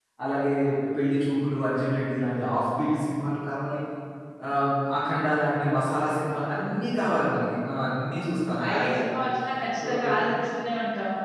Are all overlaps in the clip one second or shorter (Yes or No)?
Yes